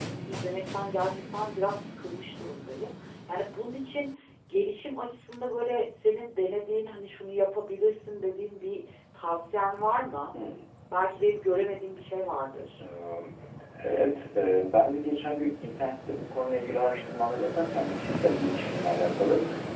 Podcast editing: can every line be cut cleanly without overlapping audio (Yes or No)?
Yes